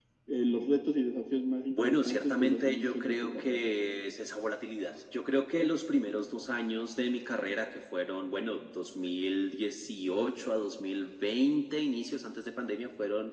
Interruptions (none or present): present